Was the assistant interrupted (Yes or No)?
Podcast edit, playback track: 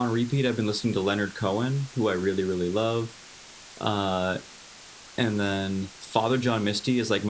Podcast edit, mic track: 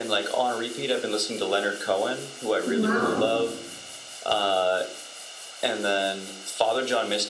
Yes